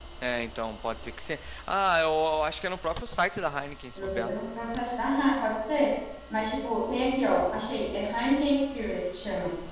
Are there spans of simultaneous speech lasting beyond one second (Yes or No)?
No